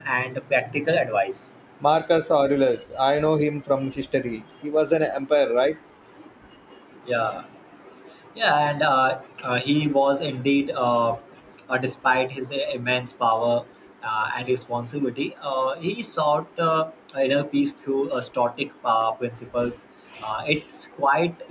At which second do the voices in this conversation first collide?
none

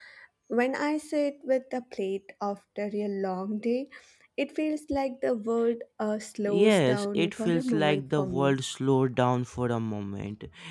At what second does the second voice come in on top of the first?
6.5 s

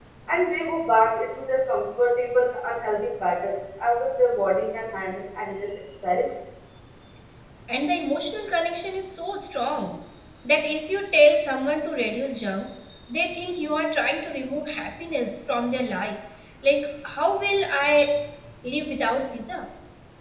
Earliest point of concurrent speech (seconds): none

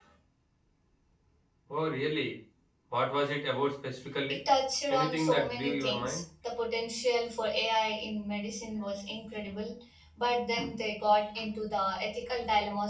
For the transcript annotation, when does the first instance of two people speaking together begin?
4.9 s

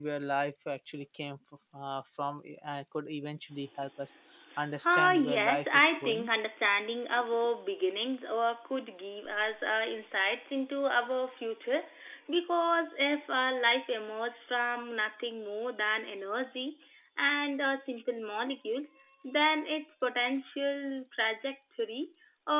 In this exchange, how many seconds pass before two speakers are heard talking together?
4.9 s

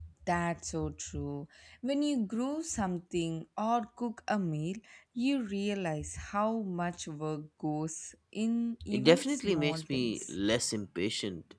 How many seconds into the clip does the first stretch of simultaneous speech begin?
8.9 s

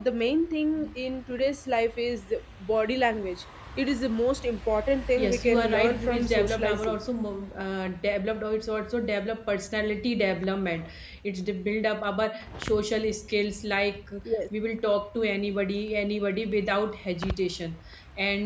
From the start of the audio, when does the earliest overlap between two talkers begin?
5.2 s

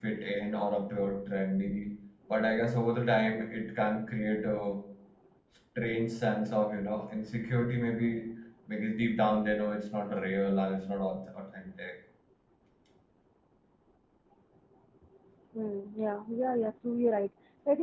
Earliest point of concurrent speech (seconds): none

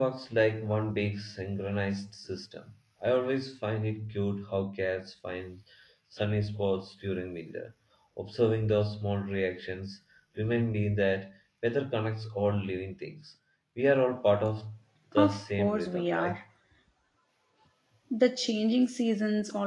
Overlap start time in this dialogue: 15.2 s

